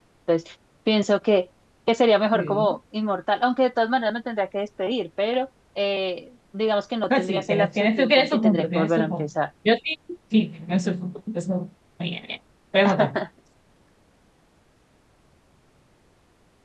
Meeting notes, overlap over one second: present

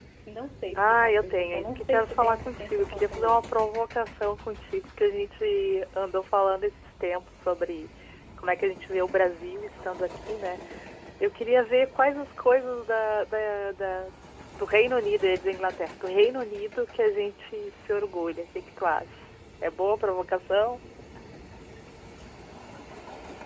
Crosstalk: present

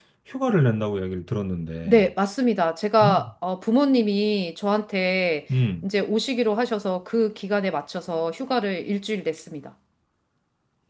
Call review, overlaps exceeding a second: none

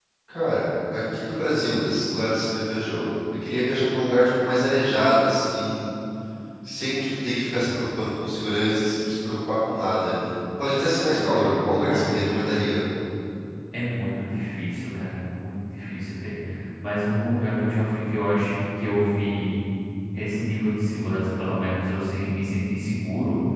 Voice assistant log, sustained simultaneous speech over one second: present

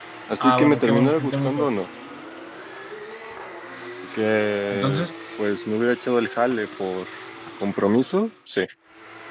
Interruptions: present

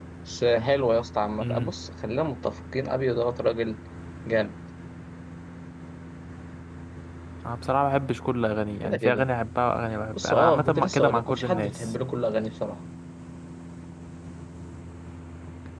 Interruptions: present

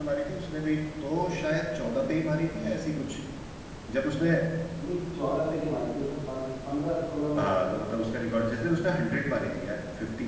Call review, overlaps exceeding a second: none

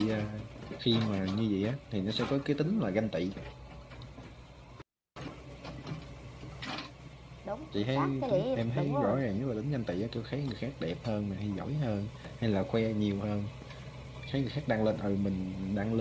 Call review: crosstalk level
present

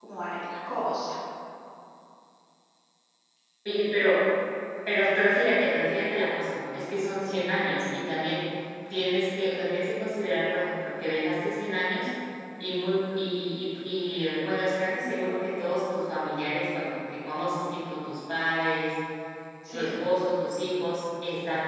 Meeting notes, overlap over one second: none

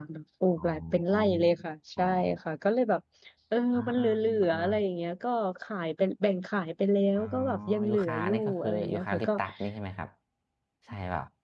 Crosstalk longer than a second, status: present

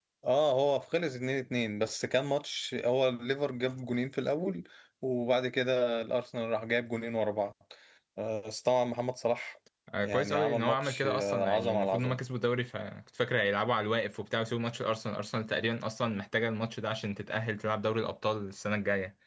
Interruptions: present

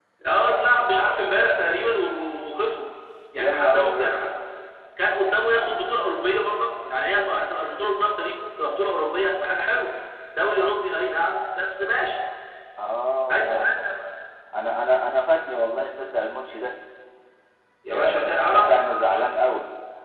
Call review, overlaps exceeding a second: present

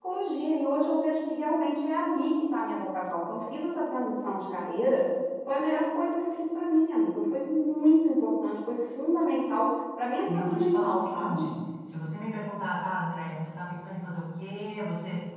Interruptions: present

